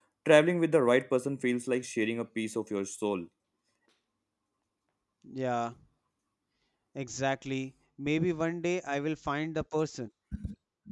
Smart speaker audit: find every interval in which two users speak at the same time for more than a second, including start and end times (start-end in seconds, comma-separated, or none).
none